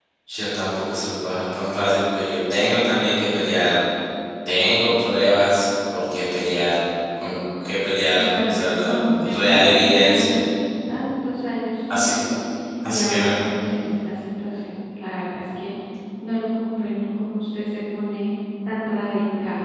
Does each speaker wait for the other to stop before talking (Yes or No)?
No